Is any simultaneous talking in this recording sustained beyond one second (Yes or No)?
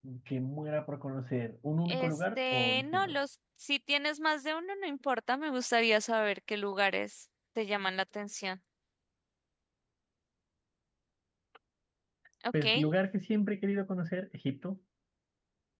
Yes